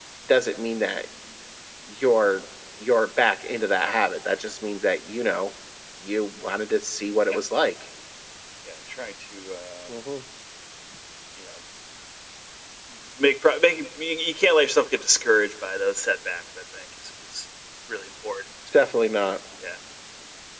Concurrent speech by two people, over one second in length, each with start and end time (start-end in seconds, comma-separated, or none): none